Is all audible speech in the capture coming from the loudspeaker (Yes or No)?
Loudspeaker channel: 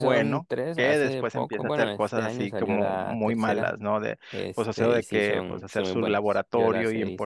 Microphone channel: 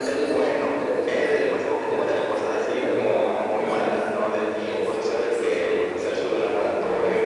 No